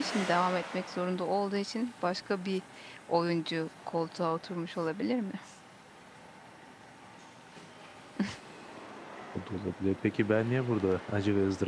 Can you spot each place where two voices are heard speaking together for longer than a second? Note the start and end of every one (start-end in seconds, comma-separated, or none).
none